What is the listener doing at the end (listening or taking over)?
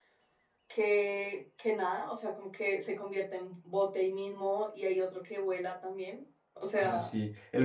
taking over